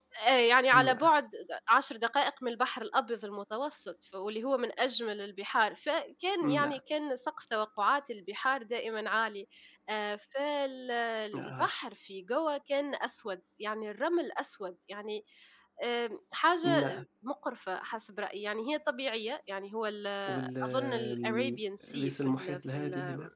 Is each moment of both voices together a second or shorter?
No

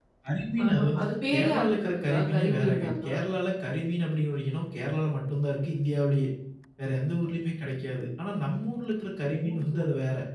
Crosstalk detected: Yes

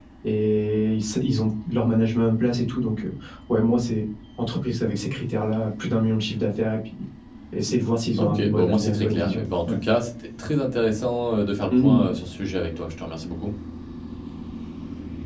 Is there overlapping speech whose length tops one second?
Yes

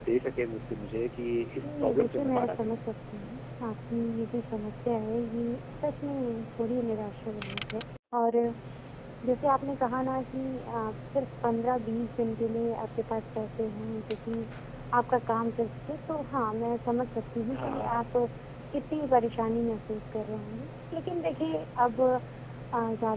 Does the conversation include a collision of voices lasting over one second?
Yes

